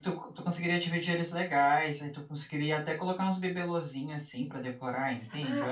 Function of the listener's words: taking over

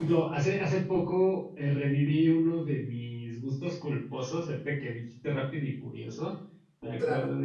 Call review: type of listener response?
listening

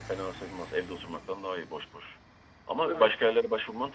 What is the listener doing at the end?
listening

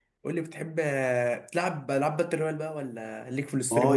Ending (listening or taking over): taking over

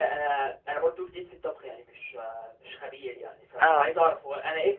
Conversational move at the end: listening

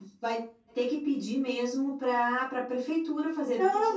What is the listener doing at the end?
taking over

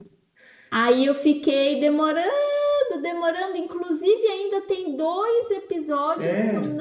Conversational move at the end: listening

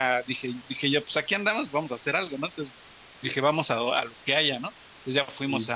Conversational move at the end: listening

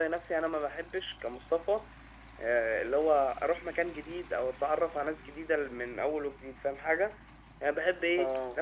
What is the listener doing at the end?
listening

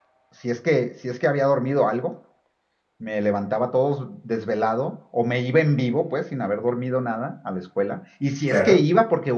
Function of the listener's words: listening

